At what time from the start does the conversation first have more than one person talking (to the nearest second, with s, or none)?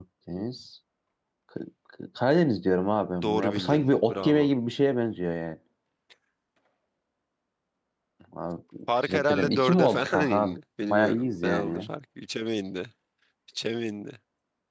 3 s